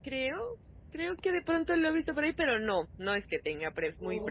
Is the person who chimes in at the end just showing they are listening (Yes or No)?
No